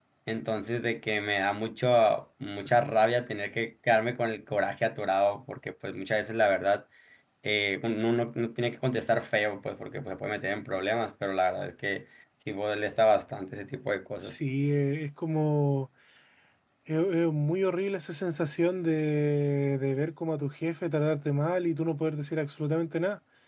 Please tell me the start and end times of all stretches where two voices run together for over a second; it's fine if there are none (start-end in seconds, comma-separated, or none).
none